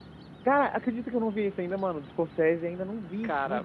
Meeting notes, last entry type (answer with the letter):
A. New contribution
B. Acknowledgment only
A